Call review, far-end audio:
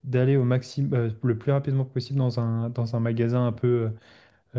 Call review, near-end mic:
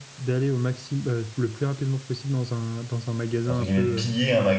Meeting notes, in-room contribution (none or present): present